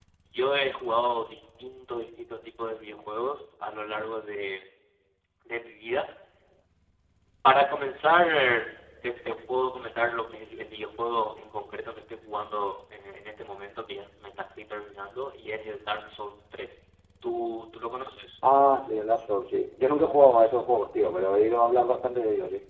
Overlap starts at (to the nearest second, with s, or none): none